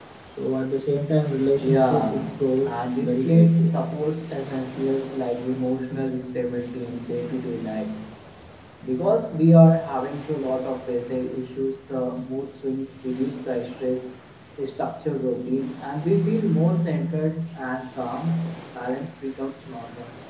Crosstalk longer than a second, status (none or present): present